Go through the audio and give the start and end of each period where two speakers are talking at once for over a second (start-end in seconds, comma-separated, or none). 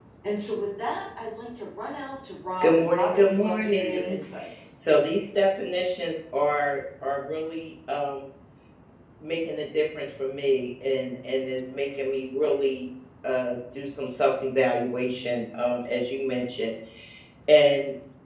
2.6-4.2